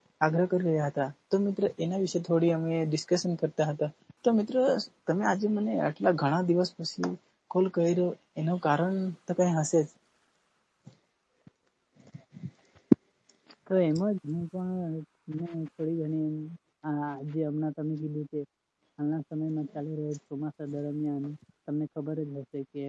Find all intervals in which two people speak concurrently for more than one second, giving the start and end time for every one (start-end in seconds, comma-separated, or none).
none